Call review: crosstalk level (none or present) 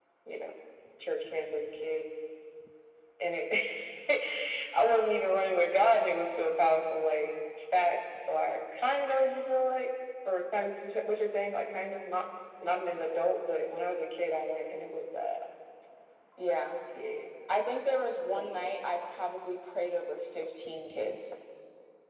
none